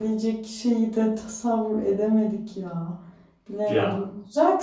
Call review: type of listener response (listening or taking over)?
listening